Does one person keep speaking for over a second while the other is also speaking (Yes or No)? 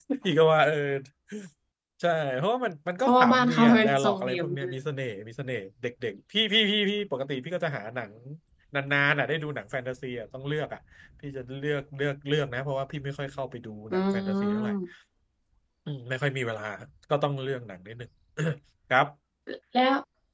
Yes